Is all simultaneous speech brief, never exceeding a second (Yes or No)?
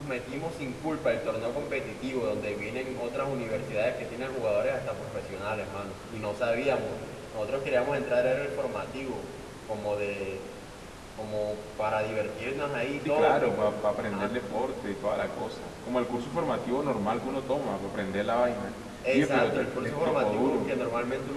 No